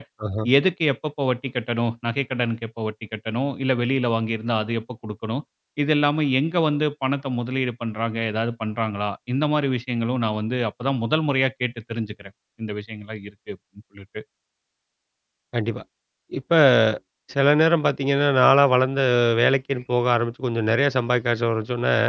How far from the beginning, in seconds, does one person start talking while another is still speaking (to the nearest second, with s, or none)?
none